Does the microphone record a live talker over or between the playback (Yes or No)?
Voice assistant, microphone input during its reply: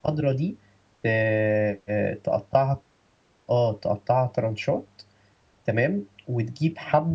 Yes